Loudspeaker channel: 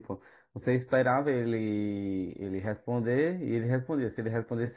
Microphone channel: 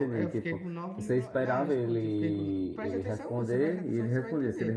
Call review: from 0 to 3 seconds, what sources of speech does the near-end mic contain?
both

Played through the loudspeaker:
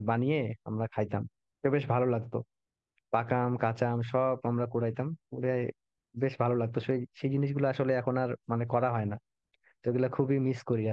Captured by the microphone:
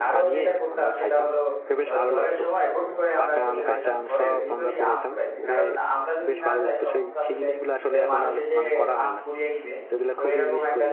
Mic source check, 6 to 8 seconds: both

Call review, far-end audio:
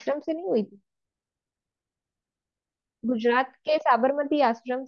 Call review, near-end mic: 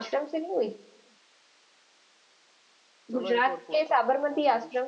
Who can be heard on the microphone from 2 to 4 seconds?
both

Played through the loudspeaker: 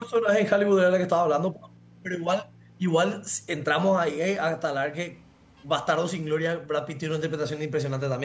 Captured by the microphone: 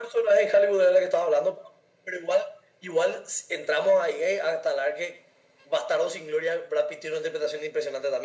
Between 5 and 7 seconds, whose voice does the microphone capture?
echo only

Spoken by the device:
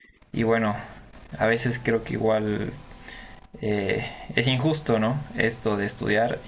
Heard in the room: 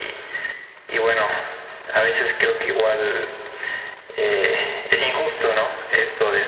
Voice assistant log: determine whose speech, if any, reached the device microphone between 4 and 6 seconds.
both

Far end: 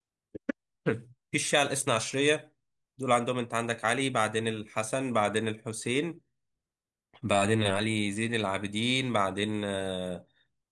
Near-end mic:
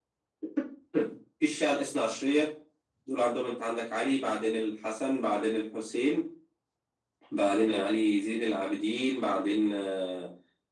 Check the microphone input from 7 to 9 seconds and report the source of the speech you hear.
echo only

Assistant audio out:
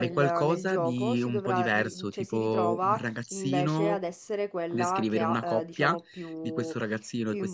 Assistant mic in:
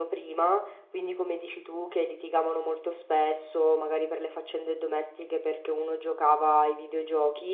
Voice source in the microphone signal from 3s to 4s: user only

